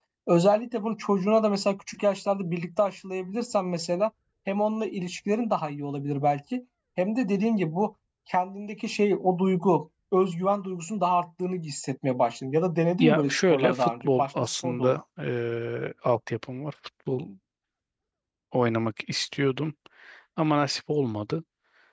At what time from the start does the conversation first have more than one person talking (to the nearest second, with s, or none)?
13 s